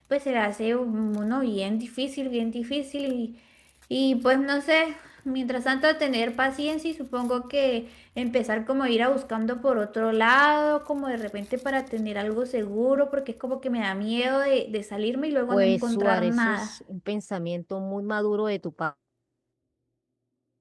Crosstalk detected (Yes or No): Yes